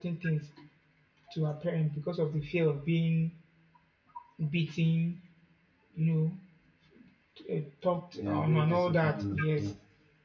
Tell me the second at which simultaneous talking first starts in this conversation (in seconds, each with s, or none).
8.1 s